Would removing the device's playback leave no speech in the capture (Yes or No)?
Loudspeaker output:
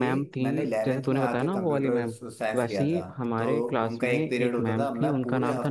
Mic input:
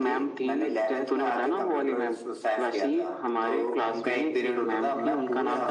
Yes